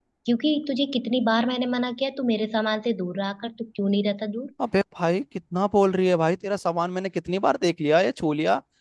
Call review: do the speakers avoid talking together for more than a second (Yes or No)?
Yes